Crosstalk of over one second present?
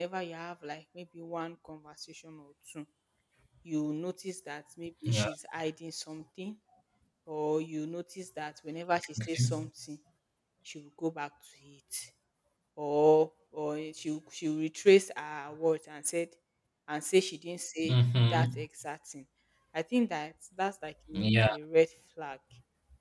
No

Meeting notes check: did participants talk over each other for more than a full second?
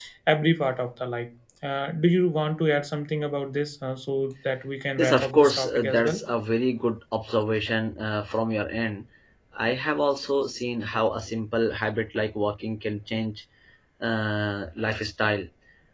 Yes, from 5.0 s

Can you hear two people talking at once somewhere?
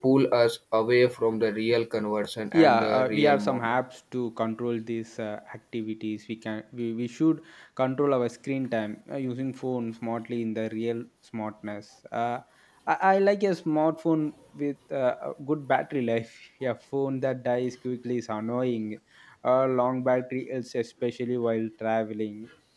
Yes, from 2.5 s

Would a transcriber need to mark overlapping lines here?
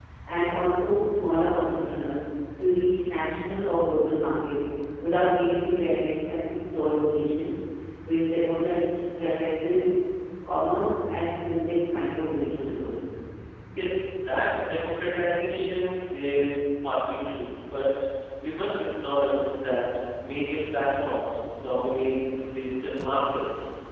No

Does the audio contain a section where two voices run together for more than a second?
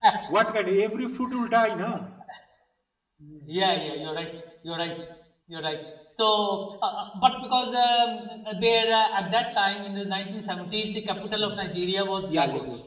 No

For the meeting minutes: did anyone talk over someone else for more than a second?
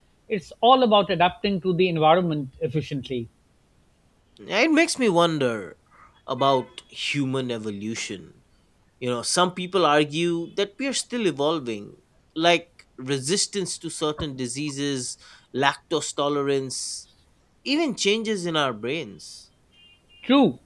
No

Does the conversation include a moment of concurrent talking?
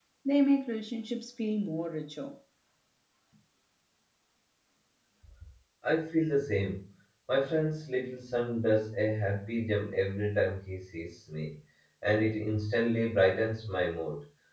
No

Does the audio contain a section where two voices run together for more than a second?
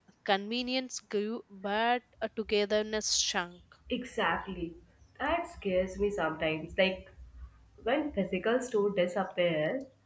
No

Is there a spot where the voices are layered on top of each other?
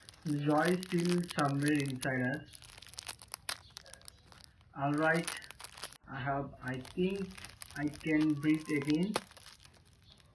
No

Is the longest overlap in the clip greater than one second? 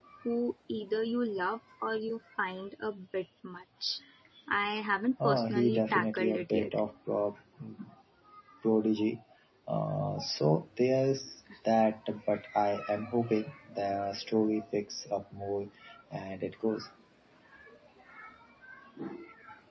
Yes, from 5.2 s

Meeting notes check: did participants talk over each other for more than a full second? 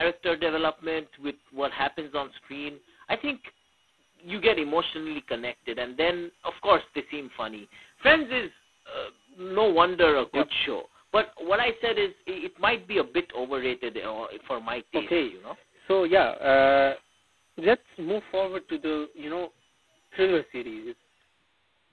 No

